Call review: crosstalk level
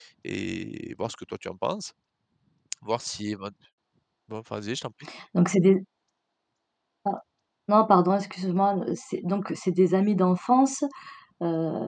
none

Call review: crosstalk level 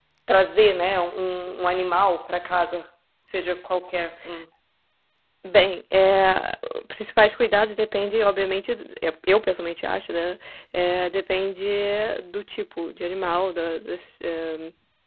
none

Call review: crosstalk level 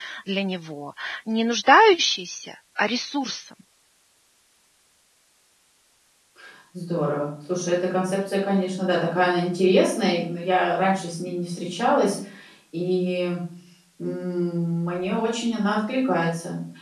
none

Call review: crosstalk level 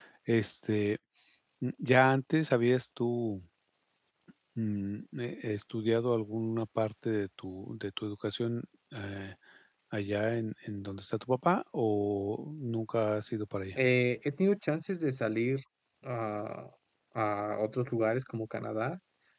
none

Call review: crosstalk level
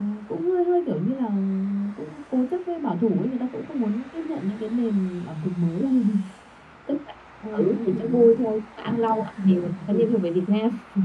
present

